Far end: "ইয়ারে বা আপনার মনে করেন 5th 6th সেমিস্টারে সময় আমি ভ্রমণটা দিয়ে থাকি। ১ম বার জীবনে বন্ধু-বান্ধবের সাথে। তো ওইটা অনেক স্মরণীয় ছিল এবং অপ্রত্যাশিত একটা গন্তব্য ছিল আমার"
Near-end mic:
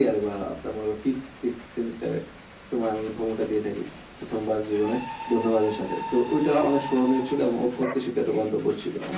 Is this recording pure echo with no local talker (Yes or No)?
Yes